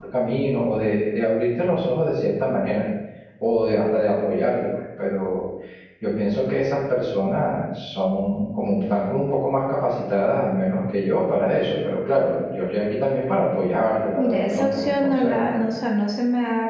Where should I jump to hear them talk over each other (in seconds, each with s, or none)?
14.2 s